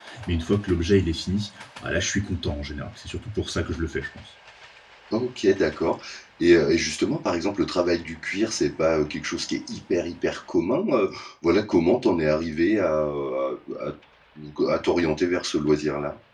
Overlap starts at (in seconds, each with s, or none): none